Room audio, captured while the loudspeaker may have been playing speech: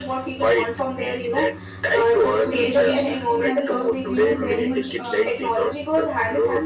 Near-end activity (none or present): present